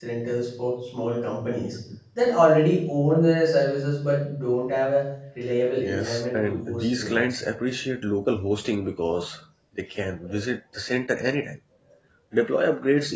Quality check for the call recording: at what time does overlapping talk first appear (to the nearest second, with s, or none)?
6 s